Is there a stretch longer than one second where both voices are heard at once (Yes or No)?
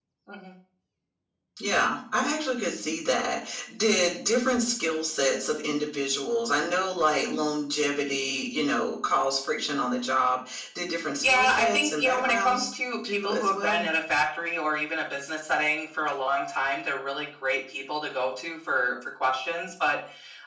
Yes